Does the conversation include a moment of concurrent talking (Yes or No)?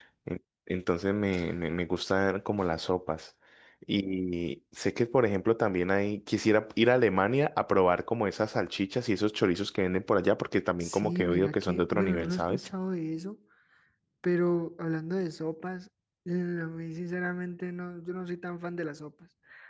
Yes